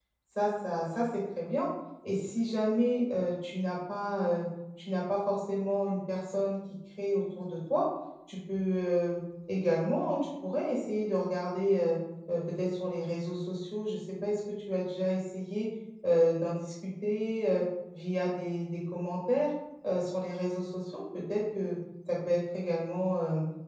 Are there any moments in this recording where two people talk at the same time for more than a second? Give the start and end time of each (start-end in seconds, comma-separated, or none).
none